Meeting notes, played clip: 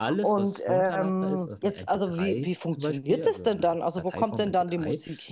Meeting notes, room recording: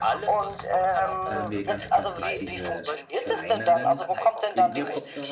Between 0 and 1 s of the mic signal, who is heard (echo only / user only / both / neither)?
echo only